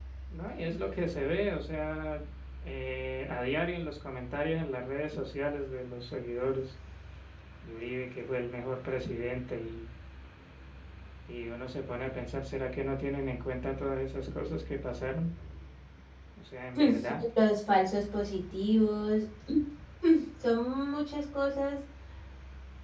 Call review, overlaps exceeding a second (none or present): none